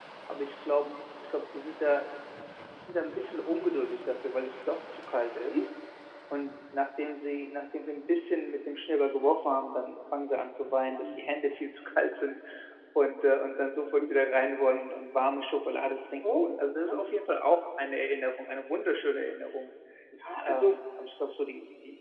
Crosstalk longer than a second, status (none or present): none